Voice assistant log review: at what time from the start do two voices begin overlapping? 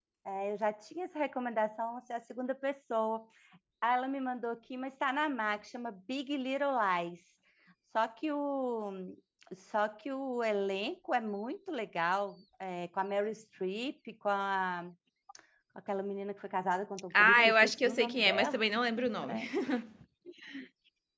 17 s

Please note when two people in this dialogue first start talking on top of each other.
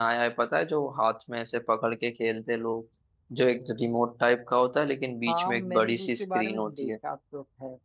5 s

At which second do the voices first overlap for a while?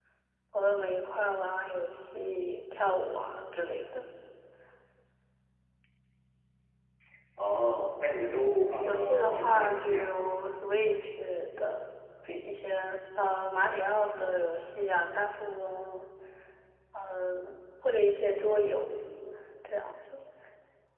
9 s

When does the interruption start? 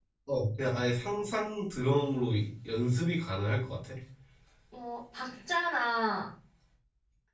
none

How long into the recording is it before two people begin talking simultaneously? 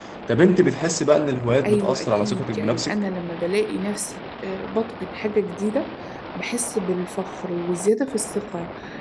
2 s

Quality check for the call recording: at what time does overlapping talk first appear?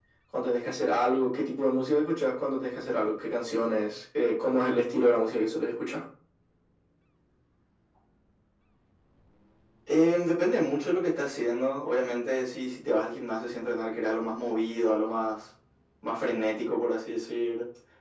none

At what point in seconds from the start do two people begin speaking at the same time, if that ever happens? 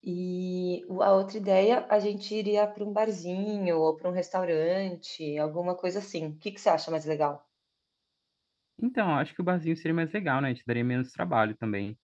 none

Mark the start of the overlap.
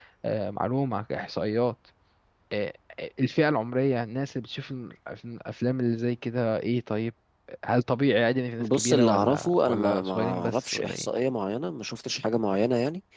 9 s

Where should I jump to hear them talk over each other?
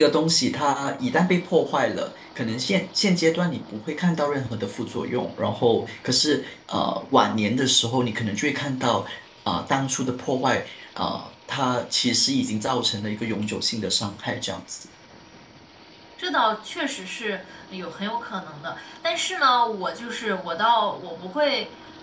none

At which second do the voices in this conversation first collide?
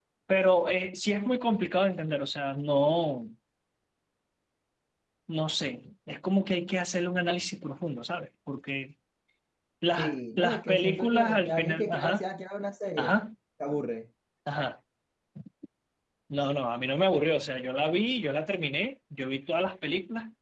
10 s

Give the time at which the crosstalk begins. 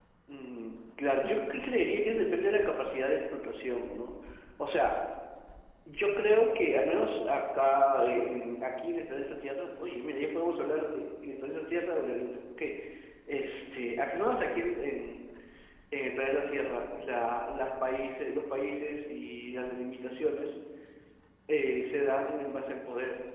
none

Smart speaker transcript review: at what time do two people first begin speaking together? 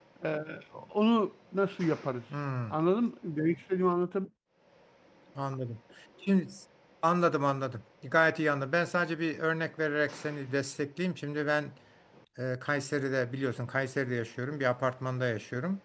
none

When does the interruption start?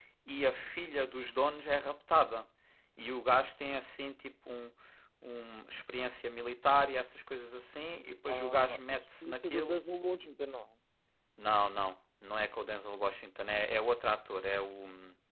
8 s

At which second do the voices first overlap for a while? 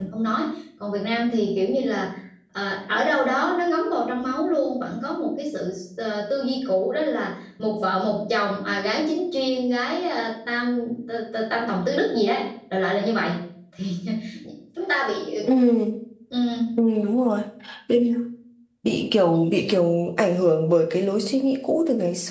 none

